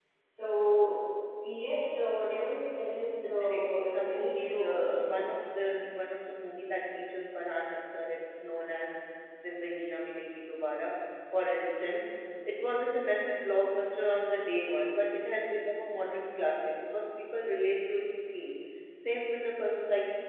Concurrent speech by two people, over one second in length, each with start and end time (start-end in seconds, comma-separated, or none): 3.3-5.3